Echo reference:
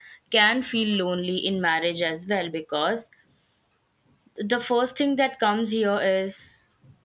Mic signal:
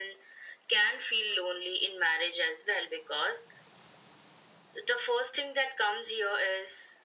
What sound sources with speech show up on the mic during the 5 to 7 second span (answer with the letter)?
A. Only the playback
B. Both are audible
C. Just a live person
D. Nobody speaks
A